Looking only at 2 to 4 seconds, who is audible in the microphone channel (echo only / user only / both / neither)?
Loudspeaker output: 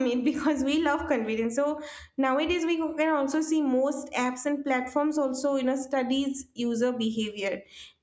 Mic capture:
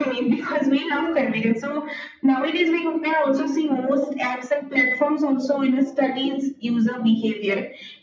echo only